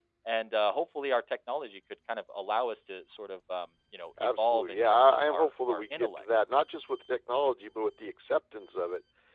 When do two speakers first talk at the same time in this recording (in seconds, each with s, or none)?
4.2 s